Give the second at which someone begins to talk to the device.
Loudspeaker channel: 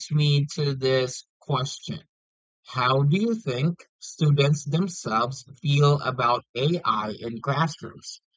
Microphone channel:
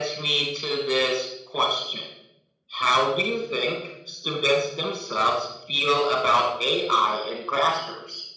none

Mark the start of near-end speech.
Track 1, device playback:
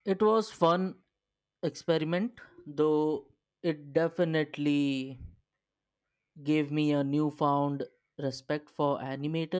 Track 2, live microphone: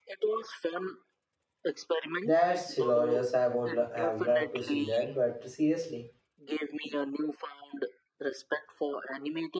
2.2 s

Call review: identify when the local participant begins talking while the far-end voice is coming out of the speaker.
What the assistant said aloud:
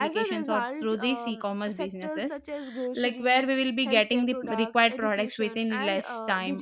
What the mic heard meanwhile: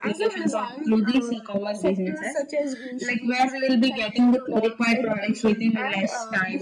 none

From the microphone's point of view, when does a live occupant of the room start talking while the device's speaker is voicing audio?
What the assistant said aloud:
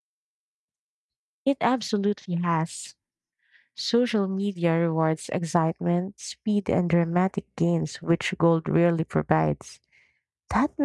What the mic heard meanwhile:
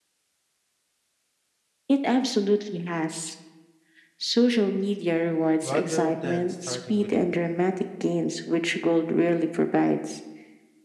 5.6 s

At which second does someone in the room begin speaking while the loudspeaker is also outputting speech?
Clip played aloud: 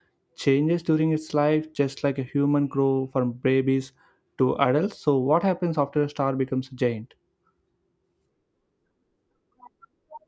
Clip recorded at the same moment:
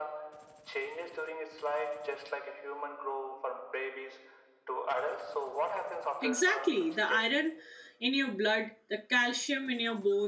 6.2 s

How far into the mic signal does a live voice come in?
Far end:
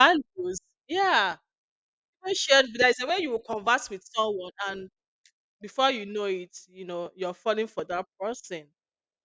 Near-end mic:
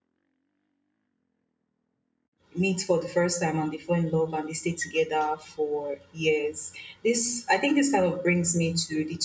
2.5 s

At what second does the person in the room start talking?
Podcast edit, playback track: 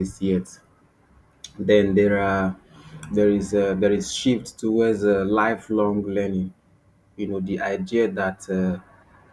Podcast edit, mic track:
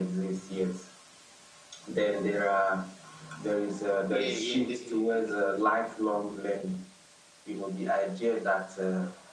4.0 s

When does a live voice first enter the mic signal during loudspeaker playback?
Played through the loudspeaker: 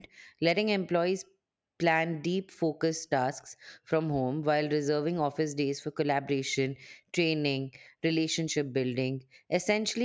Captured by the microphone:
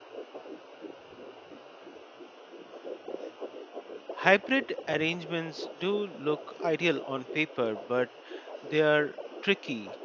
4.2 s

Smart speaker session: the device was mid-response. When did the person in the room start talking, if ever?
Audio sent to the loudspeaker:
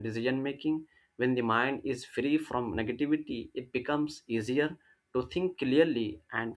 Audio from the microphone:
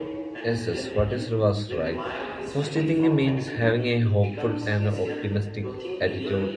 0.4 s

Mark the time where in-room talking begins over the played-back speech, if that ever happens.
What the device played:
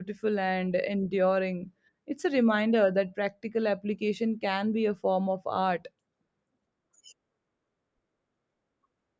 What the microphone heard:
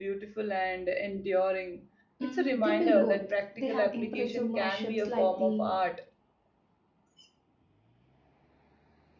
2.2 s

